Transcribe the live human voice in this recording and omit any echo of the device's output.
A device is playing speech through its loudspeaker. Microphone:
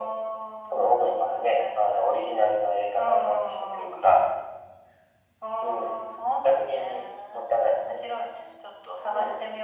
none

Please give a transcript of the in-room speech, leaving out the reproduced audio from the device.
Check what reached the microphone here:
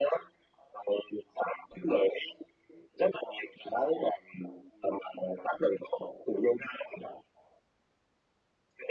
none

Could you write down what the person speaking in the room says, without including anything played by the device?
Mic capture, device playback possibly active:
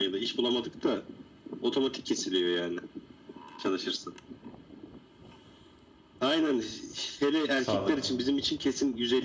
Sağlık.

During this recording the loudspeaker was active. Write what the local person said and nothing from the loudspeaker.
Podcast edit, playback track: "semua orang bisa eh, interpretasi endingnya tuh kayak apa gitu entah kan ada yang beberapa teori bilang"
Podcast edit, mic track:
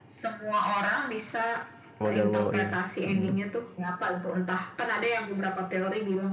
Wajar Wajar, ya. Mm.

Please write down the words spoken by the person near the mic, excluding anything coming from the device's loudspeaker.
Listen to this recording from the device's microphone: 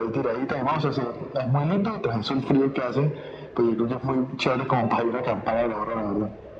none

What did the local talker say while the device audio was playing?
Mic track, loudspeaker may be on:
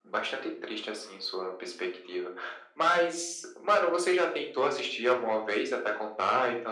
none

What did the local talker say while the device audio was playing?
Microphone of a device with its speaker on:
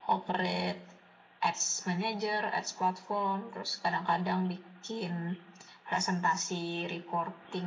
none

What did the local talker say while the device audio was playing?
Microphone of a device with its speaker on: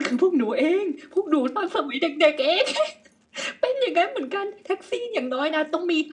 none

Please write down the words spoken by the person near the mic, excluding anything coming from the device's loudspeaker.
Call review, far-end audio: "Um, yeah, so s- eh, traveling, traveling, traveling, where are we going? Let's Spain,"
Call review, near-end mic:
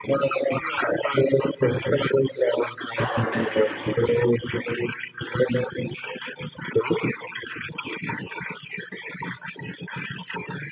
I've never been to Greece.

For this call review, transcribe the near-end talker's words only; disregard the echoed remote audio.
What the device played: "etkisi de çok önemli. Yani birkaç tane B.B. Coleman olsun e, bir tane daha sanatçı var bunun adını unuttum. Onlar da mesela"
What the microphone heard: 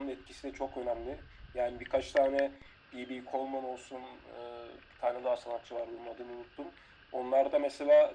none

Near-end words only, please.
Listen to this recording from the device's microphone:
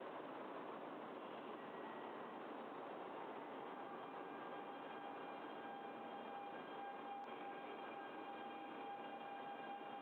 none

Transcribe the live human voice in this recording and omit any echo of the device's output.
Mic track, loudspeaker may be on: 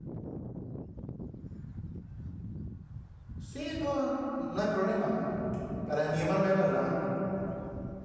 Sí, no, no hay problema. Para animarme a verla.

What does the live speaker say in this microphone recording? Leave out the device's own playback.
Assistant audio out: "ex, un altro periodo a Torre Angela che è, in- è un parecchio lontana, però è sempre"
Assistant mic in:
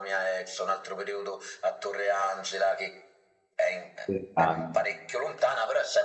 lontano.

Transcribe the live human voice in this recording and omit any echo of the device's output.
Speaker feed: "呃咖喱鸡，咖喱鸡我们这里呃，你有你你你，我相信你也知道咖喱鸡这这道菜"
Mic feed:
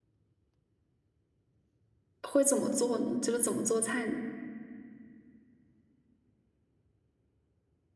会怎么做呢？就是怎么做菜呢？

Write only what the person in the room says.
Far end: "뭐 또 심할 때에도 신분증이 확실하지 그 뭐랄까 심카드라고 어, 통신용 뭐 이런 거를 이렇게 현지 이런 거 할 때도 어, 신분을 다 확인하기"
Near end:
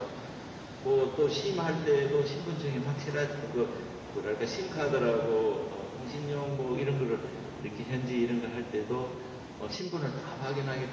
none

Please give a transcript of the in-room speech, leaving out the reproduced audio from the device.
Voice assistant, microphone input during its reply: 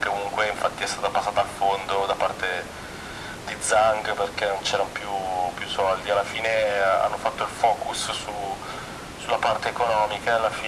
none

